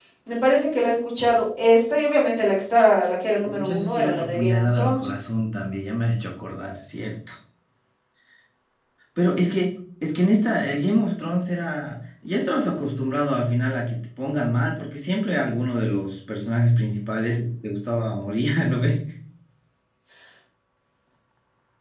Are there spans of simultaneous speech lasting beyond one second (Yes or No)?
Yes